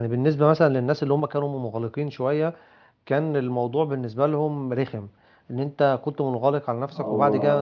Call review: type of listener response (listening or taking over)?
listening